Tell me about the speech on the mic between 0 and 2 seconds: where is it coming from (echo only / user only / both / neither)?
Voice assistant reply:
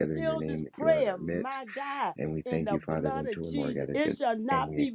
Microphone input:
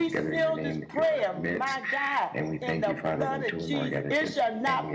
echo only